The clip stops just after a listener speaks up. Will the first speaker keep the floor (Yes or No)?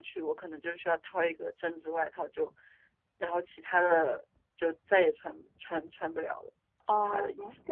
No